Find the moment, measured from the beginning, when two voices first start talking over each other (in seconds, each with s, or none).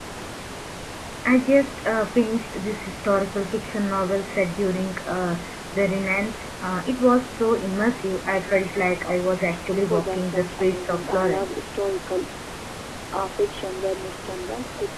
9.8 s